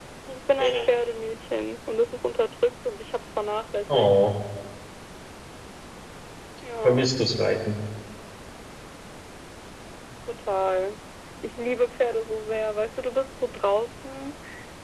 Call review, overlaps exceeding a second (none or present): none